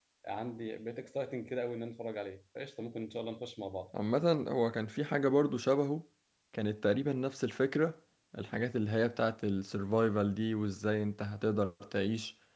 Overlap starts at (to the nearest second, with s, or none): none